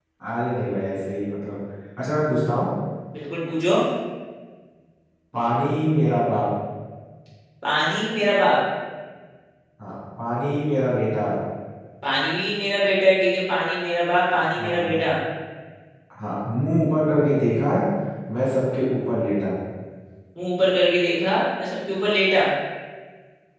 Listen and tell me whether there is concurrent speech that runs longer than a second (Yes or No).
No